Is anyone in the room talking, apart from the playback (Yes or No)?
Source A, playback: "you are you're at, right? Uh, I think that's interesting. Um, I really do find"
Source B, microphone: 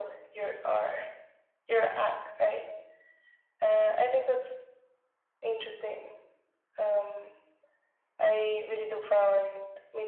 No